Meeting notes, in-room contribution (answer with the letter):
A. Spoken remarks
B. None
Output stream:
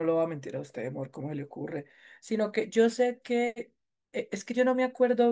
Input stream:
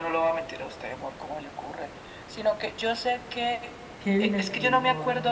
A